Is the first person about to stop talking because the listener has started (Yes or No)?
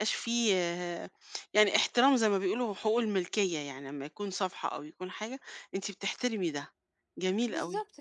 Yes